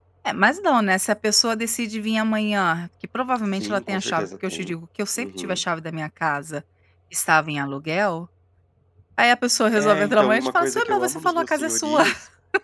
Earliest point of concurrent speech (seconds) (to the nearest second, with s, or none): 4 s